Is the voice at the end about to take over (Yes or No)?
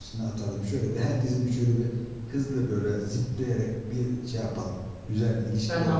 Yes